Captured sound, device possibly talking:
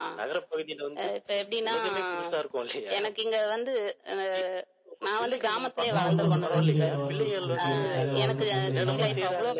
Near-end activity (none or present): present